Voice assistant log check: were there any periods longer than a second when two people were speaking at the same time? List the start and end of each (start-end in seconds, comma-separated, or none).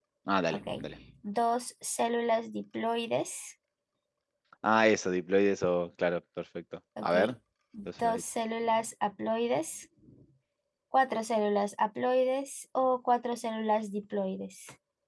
none